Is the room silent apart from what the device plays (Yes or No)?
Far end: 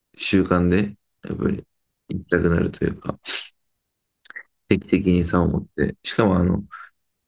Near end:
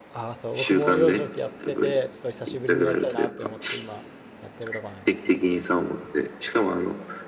No